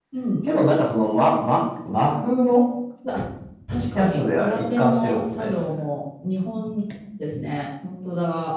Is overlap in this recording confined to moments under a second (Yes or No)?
No